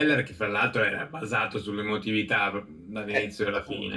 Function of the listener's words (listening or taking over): taking over